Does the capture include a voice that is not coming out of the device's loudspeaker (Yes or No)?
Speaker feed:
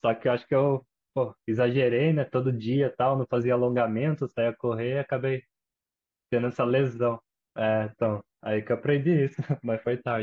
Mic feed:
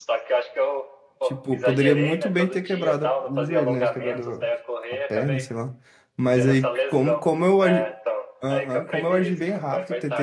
Yes